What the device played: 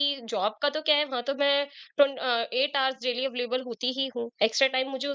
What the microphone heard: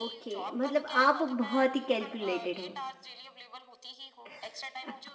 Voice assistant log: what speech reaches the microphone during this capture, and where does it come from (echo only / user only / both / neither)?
both